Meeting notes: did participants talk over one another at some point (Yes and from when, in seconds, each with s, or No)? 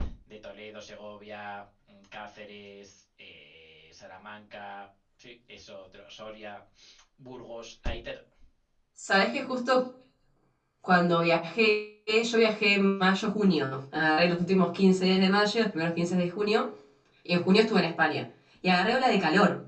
No